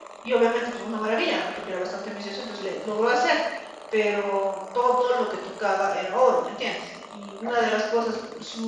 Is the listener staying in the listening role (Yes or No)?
Yes